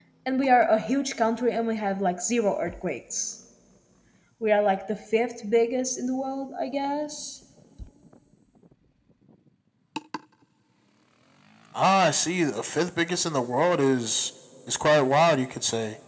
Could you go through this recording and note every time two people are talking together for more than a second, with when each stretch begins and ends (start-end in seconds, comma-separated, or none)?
none